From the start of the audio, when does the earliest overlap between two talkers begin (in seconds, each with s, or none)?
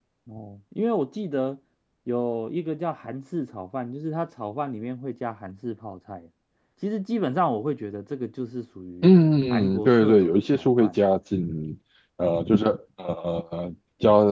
9.5 s